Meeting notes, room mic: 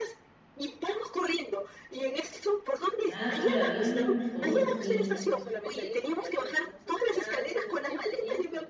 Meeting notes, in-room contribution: present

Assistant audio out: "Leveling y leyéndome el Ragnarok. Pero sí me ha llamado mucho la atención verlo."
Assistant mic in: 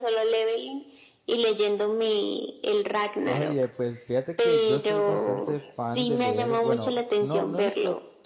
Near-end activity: present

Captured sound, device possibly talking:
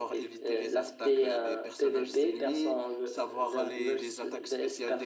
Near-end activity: none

